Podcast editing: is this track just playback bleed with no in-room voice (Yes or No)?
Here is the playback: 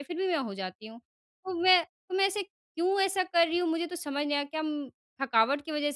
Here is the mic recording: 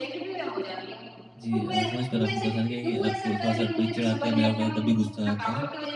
No